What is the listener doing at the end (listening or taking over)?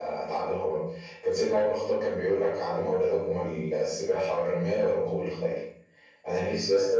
taking over